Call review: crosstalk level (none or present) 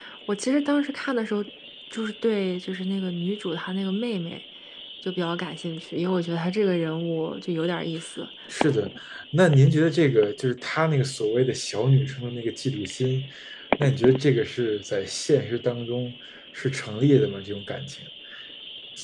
none